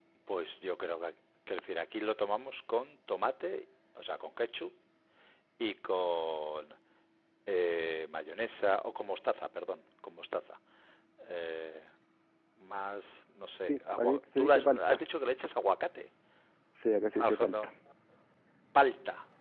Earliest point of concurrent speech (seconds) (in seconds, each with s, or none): 13.6 s